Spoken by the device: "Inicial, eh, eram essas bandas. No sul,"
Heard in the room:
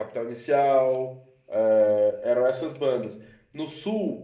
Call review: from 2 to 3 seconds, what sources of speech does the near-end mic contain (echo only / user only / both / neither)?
echo only